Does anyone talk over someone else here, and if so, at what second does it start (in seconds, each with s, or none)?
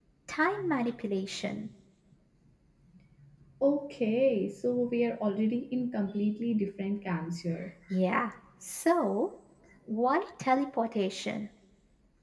none